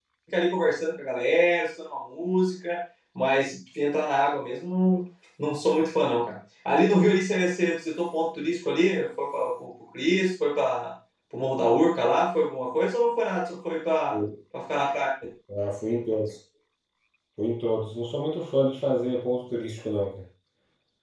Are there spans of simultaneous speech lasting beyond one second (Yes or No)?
No